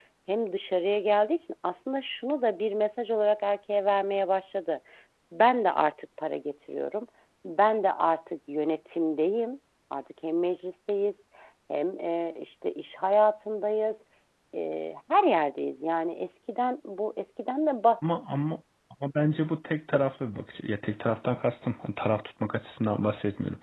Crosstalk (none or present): none